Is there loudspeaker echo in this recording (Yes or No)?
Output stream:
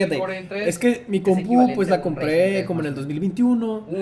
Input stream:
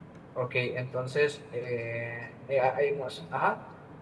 No